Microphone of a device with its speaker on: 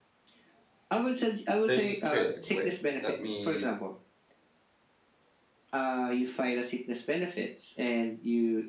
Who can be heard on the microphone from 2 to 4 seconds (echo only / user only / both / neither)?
both